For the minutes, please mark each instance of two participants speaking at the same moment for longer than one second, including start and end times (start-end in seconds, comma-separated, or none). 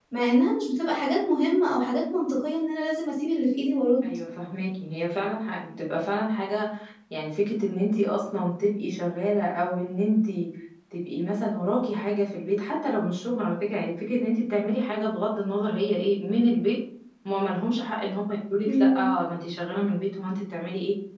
none